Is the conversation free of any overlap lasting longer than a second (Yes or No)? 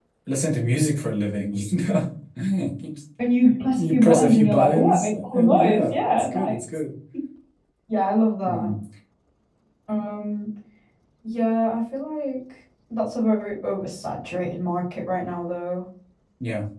No